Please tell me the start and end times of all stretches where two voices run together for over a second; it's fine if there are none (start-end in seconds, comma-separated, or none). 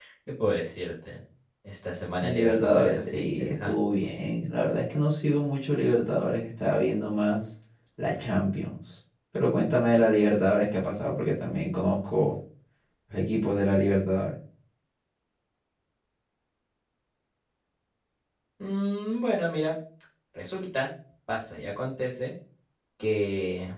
2.2-3.8